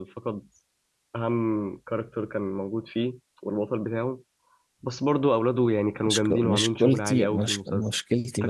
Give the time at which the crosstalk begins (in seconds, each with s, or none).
6.0 s